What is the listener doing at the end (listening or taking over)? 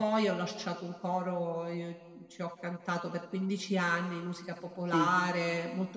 listening